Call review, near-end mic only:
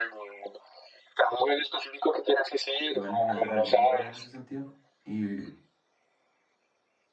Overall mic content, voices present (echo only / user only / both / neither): both